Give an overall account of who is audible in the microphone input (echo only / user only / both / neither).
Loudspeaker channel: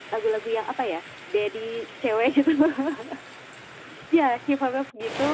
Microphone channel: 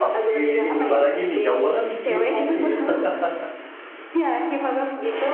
both